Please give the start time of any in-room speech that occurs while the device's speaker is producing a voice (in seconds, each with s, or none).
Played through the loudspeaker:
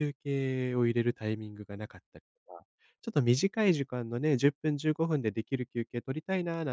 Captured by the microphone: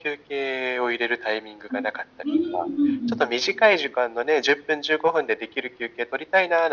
1.7 s